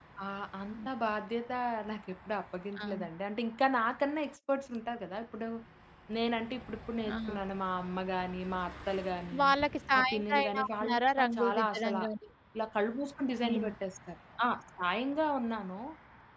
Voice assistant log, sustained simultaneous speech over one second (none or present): present